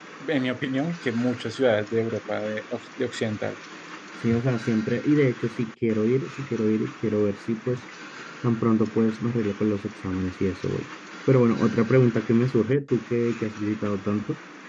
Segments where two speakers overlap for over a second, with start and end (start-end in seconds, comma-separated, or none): none